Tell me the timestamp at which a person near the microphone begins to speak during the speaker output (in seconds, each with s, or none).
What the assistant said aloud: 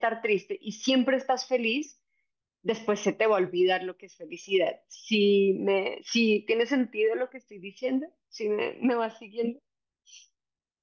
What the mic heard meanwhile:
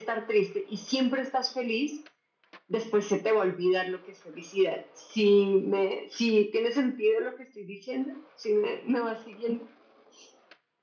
none